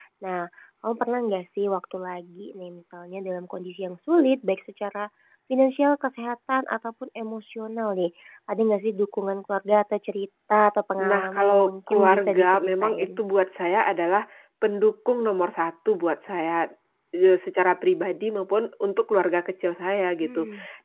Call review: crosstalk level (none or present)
present